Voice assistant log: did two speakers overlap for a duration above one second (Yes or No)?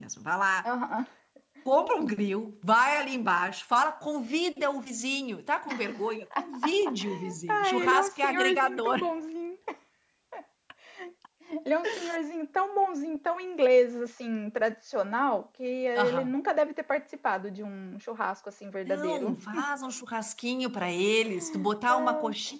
Yes